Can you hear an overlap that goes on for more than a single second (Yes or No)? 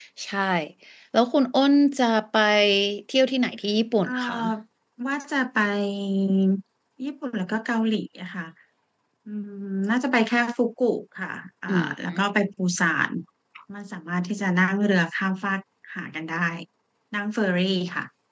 No